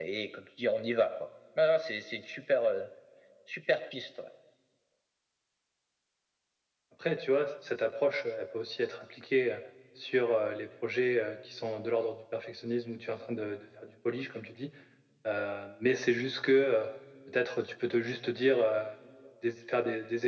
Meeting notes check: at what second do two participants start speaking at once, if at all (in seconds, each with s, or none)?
none